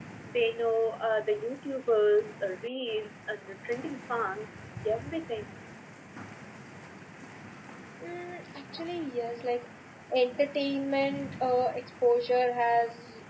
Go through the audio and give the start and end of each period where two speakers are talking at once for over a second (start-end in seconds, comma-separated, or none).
none